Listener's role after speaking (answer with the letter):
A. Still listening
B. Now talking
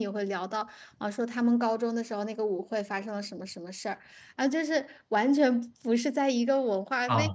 B